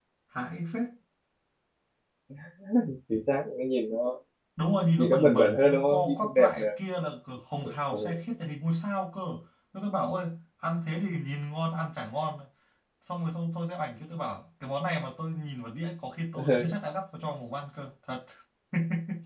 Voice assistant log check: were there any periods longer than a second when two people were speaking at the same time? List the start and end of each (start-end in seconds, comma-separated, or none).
5.0-6.6